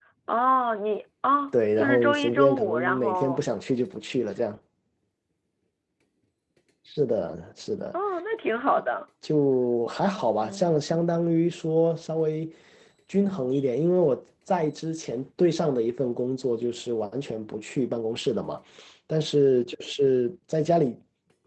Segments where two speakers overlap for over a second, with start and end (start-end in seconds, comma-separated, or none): 1.8-3.4